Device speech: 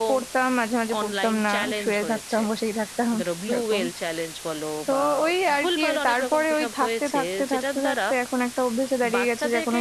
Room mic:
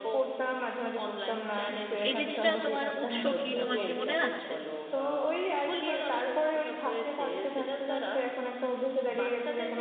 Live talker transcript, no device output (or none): এই জিনিসটা তোমার উৎস কি তোমার কি মনে আছে